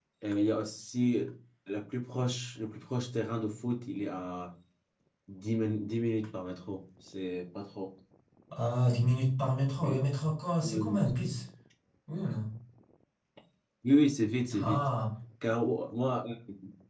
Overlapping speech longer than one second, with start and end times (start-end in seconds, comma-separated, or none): none